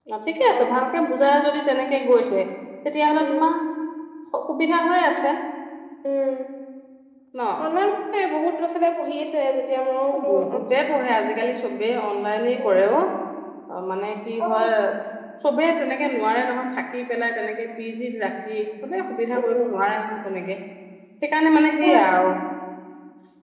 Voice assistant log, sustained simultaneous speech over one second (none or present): none